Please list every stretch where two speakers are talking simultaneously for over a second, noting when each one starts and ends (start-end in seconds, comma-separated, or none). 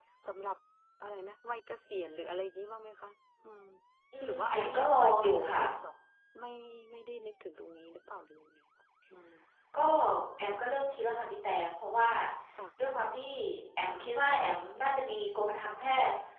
4.2-5.6